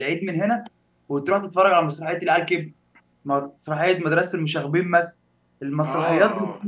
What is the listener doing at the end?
listening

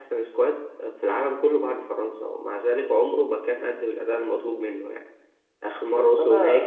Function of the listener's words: listening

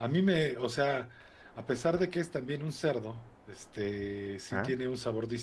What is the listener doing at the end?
listening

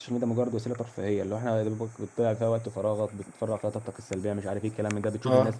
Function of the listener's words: listening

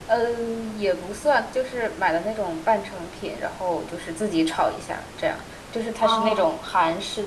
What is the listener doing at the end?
listening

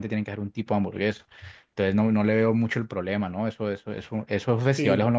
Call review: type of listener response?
taking over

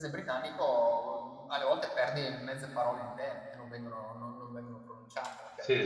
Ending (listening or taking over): taking over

